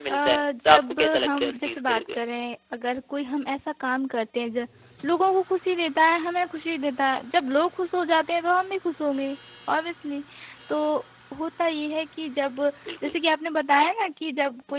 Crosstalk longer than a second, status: present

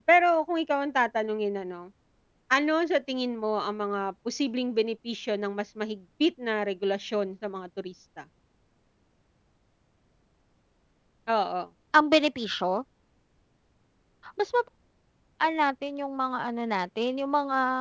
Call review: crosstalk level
none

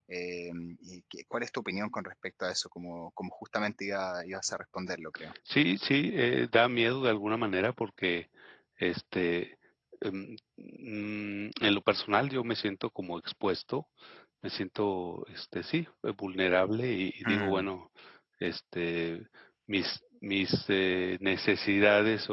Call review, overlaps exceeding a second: none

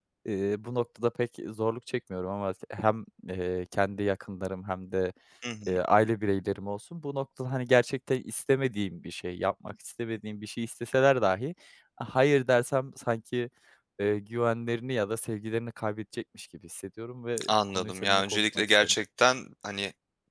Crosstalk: present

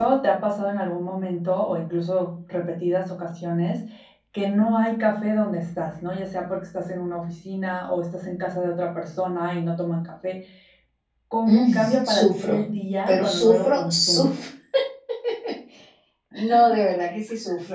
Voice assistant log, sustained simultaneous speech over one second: present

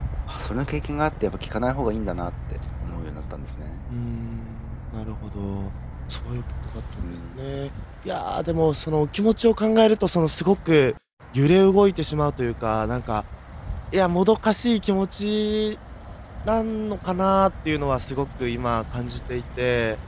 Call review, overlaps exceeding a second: none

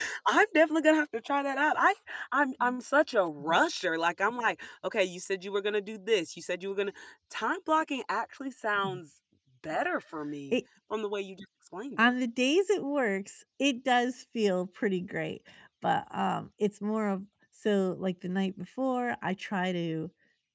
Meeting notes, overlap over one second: none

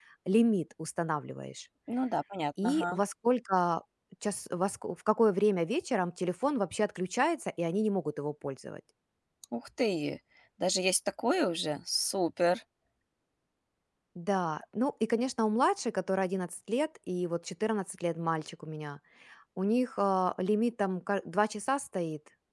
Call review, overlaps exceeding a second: none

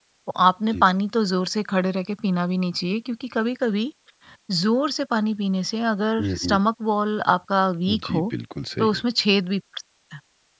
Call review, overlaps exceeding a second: none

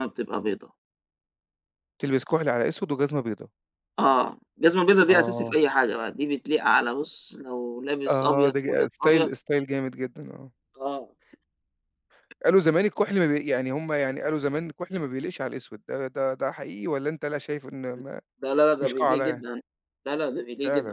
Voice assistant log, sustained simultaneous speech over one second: present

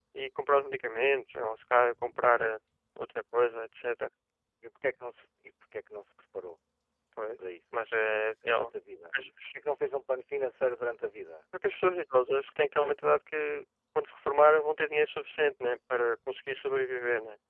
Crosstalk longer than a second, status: none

